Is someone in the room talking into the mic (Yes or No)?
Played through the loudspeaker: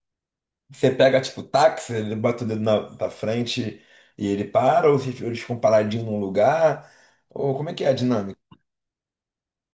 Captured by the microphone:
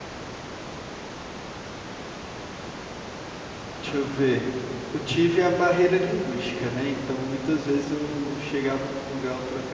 Yes